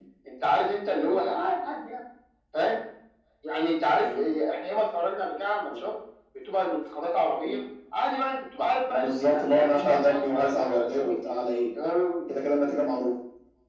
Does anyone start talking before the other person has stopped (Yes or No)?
Yes